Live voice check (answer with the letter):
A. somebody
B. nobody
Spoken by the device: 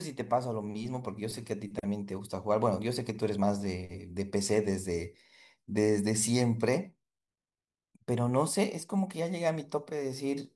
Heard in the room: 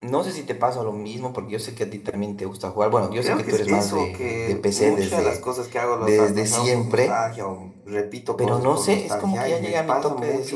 A